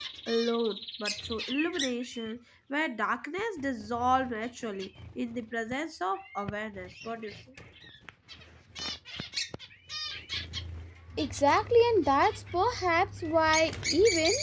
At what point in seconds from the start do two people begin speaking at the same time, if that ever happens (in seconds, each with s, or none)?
none